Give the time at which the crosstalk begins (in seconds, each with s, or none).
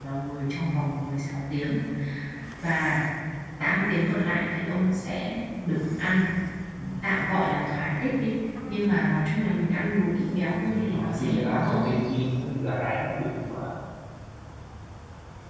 10.6 s